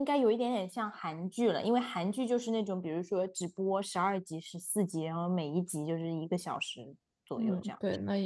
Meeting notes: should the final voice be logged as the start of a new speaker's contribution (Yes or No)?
Yes